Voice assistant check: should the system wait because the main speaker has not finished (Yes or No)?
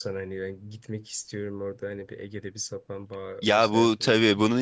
No